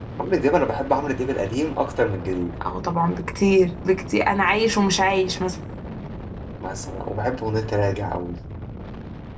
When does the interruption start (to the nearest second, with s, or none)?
none